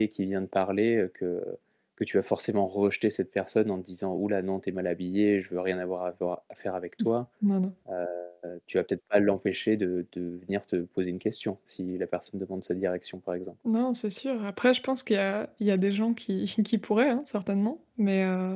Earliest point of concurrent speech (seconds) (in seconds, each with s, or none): none